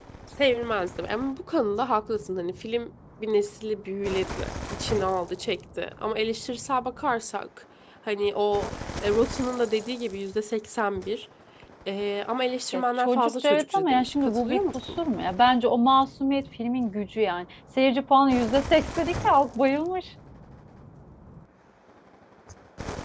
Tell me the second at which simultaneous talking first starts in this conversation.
12.7 s

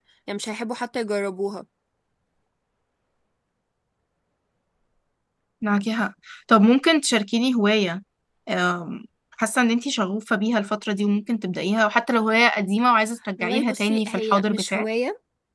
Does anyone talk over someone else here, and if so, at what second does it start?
13.4 s

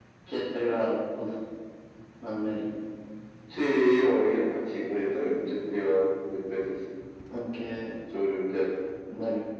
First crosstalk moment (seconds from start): none

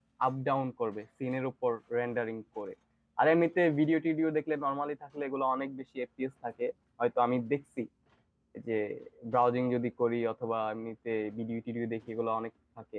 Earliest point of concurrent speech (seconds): none

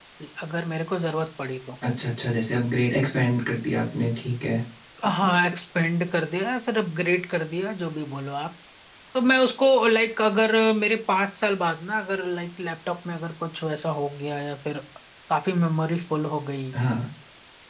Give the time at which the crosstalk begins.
none

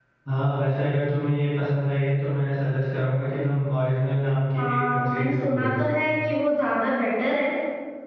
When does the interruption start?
4.6 s

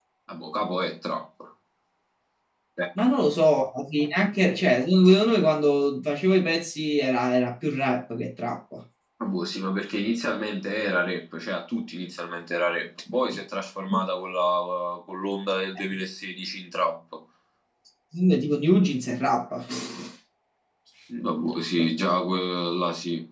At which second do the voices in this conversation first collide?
none

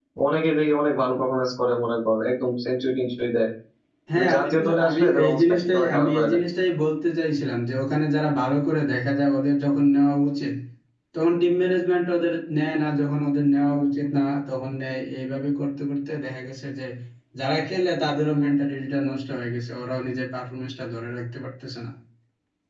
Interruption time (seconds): 4.1 s

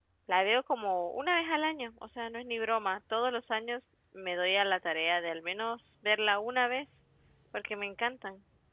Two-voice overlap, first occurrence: none

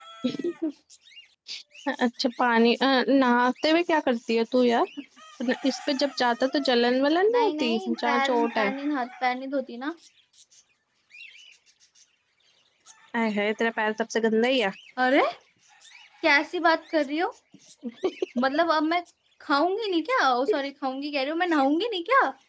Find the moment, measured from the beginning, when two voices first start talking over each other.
7.3 s

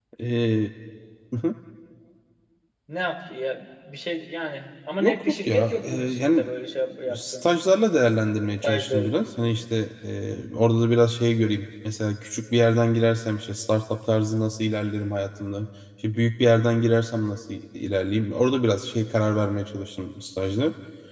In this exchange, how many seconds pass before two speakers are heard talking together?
5.0 s

